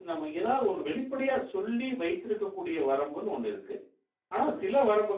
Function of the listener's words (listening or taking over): listening